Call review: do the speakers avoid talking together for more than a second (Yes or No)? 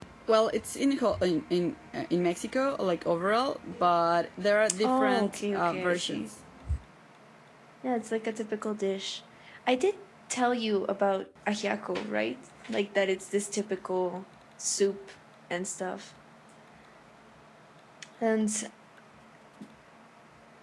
No